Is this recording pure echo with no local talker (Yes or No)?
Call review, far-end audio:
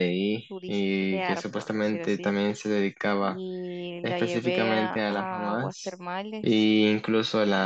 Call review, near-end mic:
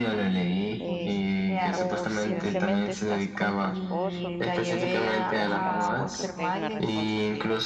No